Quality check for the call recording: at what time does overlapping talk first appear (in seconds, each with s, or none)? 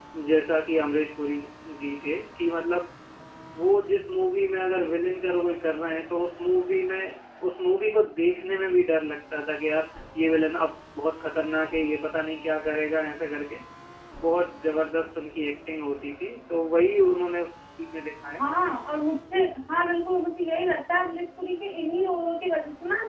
none